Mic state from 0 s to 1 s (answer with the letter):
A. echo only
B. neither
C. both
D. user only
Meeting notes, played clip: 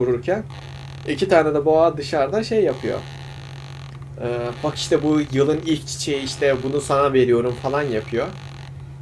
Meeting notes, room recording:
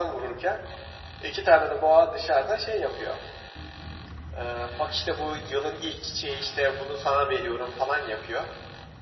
A